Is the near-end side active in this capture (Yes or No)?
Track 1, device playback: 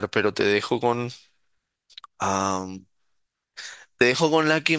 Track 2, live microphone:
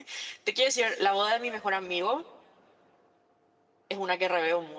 Yes